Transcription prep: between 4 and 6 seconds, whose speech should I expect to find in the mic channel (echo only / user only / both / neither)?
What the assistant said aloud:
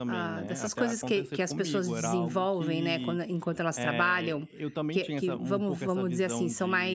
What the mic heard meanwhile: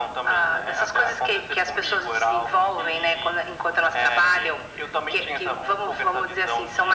echo only